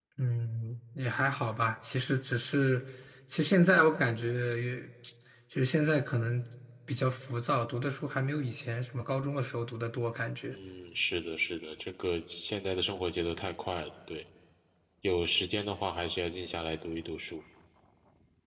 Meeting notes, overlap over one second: none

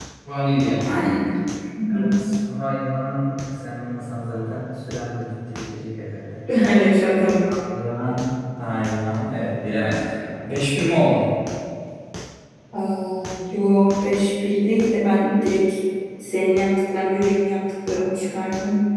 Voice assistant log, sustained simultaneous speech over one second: none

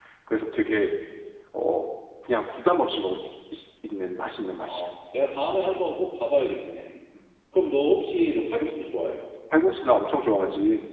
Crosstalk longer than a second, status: none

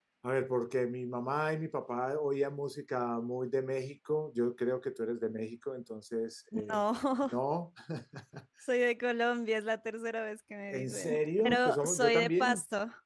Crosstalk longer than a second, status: present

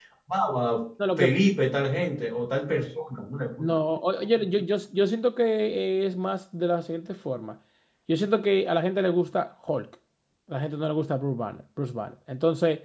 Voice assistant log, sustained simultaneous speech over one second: none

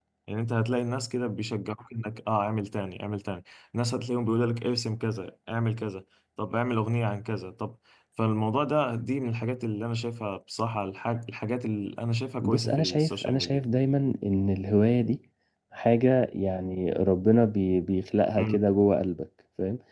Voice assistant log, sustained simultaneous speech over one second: present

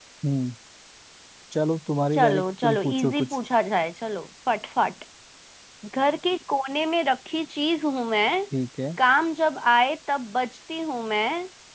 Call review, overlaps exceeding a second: present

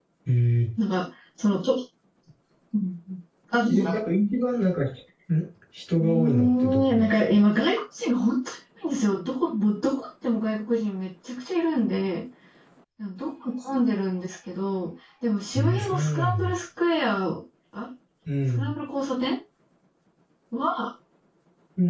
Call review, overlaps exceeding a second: present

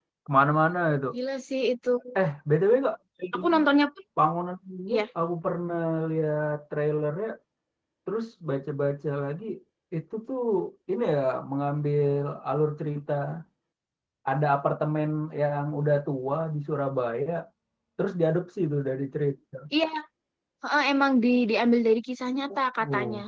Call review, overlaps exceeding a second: none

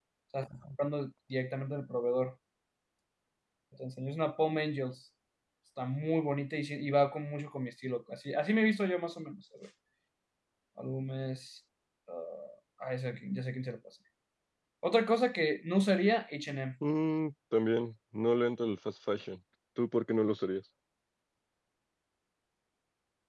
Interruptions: none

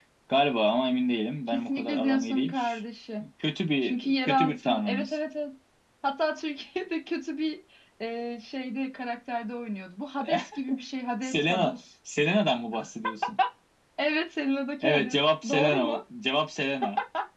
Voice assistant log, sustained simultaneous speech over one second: present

